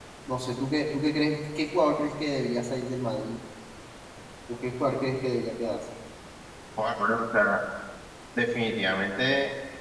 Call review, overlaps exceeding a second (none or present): none